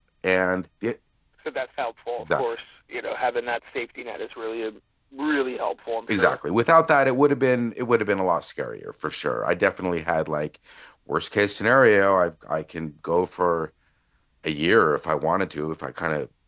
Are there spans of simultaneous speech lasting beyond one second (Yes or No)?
No